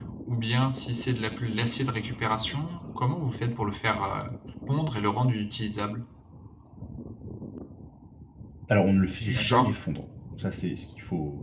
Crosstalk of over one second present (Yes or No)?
No